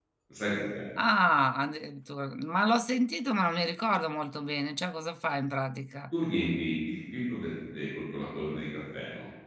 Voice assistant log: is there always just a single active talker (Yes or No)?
Yes